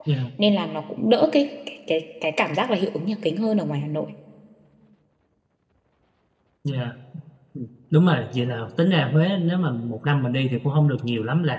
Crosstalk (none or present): none